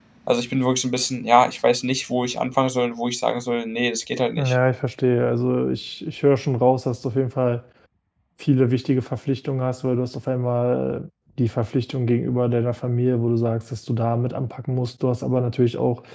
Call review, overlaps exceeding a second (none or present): none